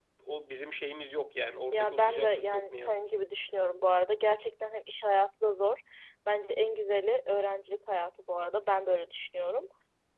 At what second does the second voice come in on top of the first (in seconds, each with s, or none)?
1.7 s